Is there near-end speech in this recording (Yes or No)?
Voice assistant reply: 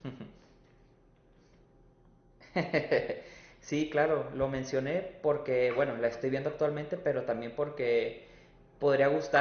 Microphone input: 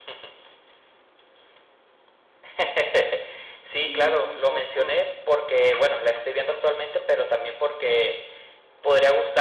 Yes